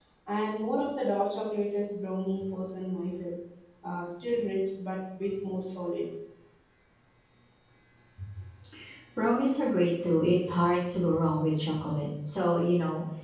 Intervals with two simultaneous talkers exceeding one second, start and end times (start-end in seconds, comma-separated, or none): none